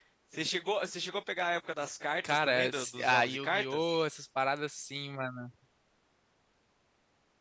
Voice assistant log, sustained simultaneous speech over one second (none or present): present